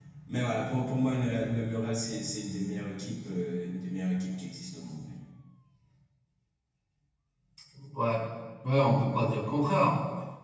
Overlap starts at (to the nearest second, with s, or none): none